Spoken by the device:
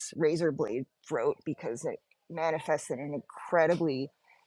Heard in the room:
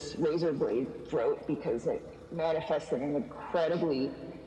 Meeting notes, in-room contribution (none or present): none